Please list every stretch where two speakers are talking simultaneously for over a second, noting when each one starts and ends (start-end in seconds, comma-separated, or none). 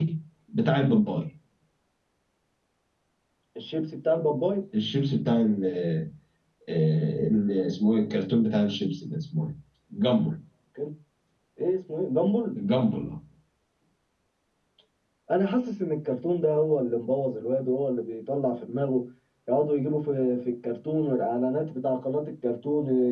none